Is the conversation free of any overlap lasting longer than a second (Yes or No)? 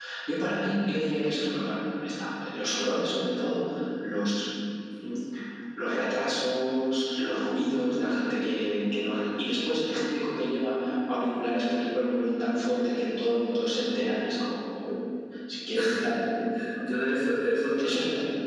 Yes